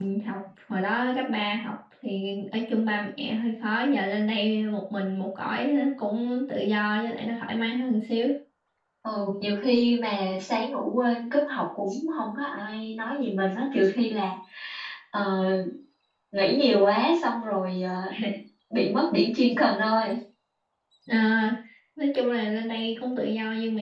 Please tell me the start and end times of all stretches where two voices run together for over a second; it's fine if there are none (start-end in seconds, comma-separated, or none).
none